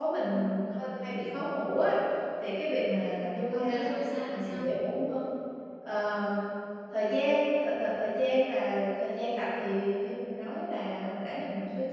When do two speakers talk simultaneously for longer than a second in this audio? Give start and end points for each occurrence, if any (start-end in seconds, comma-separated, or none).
3.1-4.6